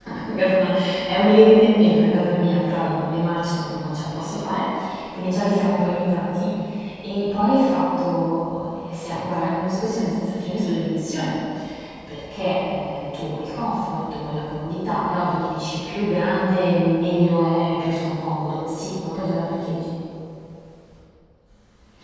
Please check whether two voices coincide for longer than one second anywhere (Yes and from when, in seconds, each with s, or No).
No